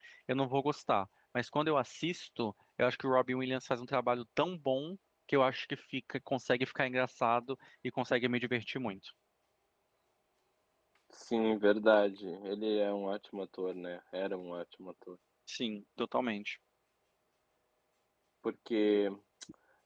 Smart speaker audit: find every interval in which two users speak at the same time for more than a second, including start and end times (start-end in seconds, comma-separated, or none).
none